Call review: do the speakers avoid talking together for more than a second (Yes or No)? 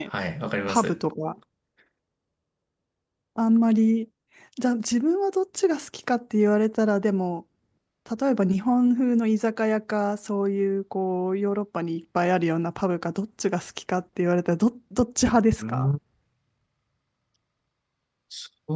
Yes